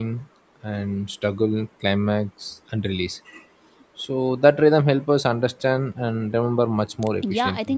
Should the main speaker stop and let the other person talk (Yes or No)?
Yes